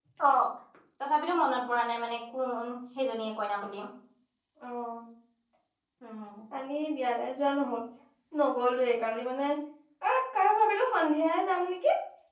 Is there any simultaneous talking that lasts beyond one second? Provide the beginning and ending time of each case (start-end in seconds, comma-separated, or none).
none